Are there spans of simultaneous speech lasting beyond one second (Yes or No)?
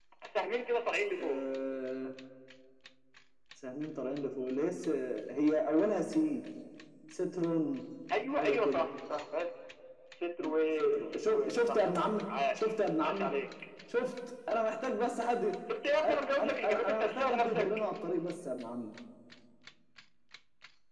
Yes